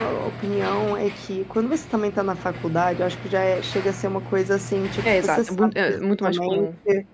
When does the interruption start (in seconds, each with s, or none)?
5.0 s